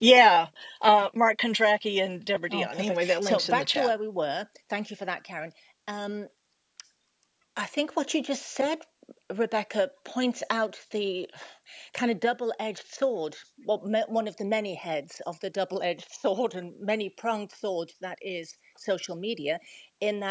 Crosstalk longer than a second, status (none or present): present